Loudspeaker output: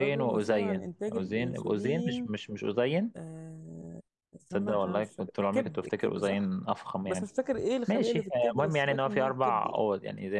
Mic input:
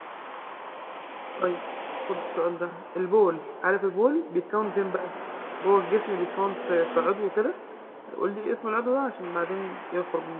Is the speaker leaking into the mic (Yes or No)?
No